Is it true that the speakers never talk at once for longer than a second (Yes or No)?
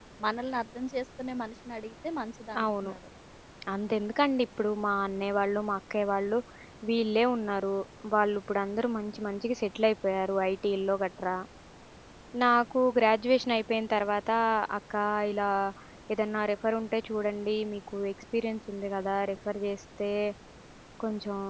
Yes